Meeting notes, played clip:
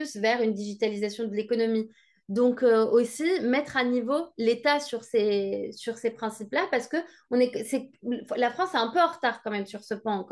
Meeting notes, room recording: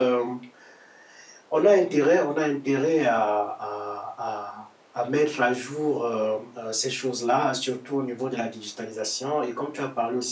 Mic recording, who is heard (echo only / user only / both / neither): user only